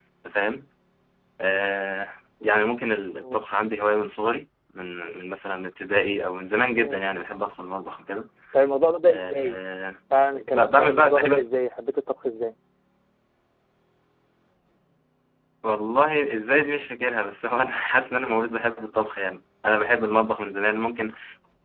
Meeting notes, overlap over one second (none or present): present